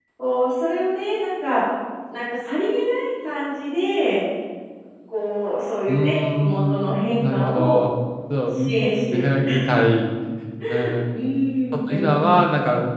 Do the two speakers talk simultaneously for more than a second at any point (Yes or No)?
Yes